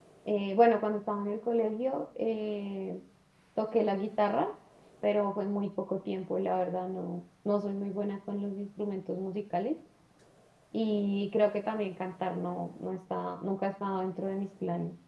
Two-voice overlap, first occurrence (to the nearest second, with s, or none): none